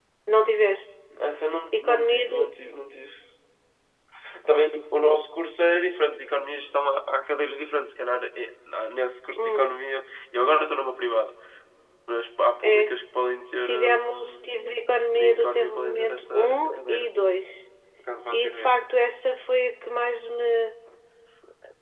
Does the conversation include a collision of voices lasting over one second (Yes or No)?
Yes